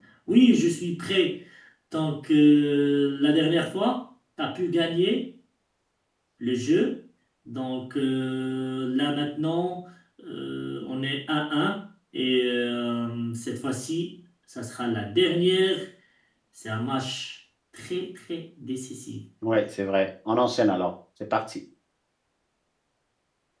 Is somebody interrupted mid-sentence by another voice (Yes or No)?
No